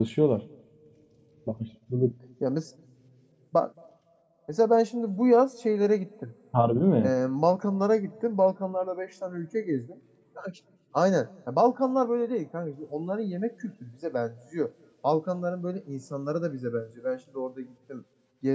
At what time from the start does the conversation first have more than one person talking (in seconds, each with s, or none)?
none